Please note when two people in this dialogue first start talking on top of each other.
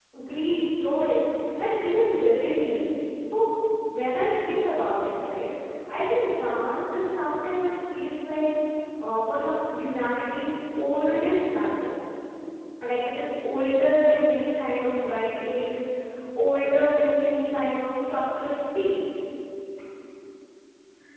none

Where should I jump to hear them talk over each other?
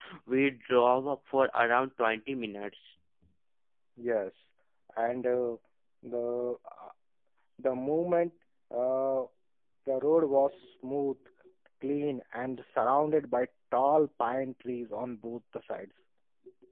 none

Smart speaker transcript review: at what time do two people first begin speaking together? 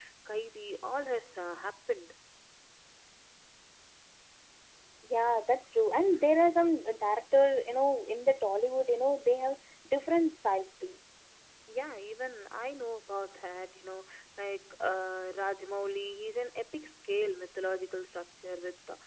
none

